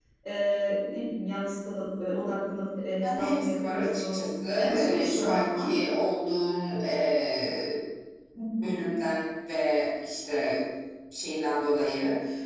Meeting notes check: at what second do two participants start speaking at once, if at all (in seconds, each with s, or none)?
3.0 s